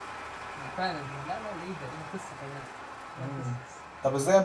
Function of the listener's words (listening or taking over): taking over